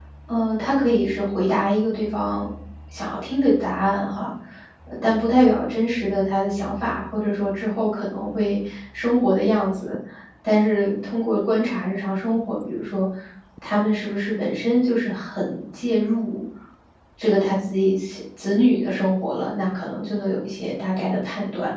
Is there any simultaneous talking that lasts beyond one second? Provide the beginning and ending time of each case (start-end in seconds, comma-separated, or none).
none